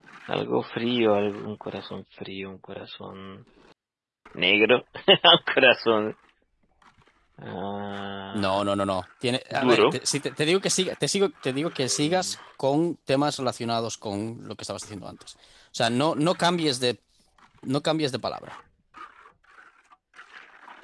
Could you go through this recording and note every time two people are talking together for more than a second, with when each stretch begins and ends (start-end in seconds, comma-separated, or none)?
none